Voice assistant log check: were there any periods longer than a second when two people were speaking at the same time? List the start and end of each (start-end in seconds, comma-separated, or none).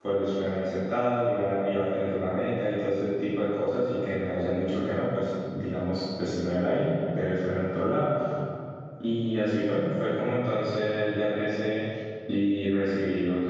none